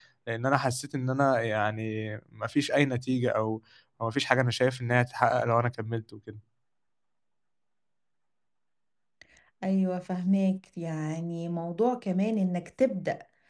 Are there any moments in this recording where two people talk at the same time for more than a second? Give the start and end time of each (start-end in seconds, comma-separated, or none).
none